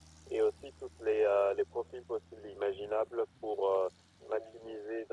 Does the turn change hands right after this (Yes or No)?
No